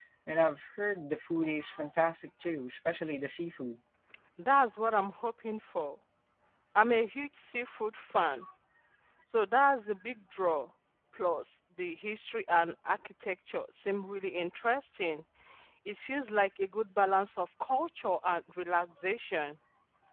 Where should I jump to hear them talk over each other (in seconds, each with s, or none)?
none